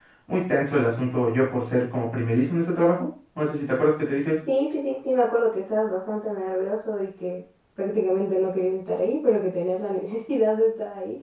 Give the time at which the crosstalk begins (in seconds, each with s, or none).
none